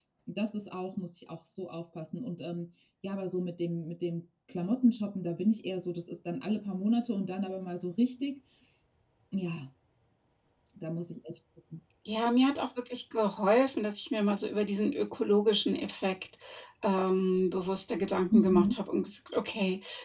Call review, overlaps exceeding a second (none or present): none